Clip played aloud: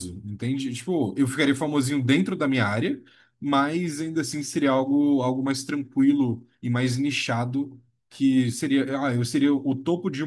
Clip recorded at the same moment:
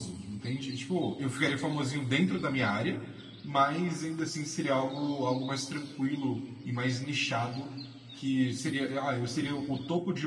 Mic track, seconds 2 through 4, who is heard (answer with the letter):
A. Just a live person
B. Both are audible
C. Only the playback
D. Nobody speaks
C